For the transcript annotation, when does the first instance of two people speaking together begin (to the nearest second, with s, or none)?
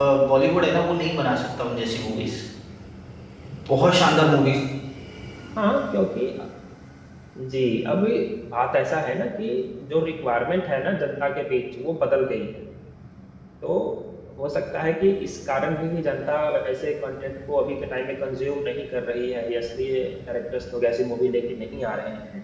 none